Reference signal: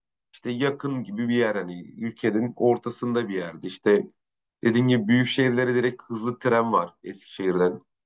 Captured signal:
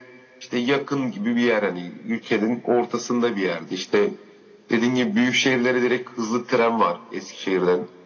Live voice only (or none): none